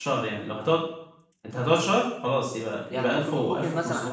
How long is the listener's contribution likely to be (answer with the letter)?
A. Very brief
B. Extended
B